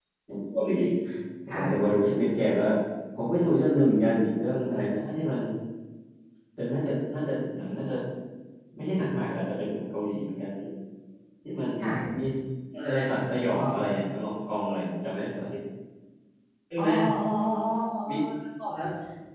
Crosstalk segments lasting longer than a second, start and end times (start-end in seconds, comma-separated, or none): none